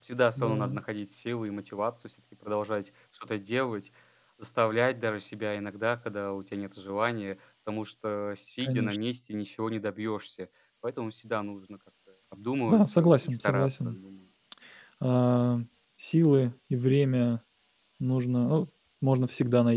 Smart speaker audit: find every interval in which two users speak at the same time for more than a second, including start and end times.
12.7-13.9

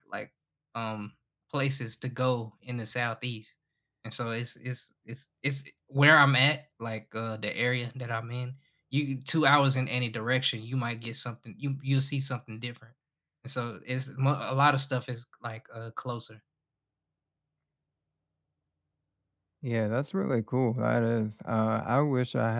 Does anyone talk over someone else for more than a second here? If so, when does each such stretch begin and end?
none

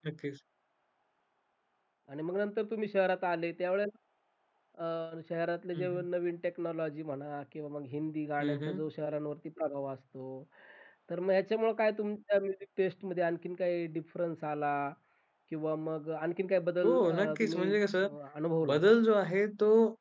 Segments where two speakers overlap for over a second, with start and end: 16.8-18.1

